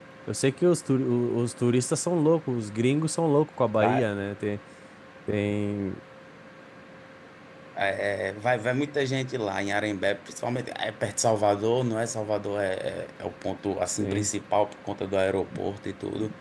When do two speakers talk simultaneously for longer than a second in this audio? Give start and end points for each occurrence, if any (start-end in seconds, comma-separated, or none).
none